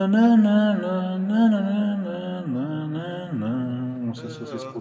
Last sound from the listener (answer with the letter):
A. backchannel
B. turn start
B